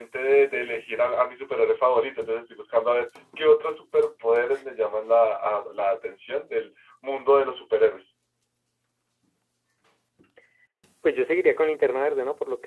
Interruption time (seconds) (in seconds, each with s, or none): none